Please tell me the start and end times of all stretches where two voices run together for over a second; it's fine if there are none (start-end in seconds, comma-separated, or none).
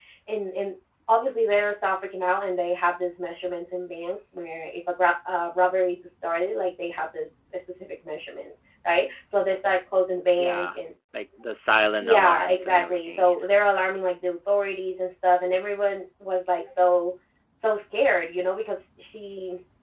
12.0-13.6